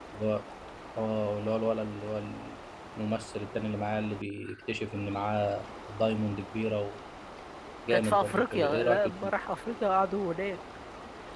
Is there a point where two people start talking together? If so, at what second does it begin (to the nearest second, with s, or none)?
8 s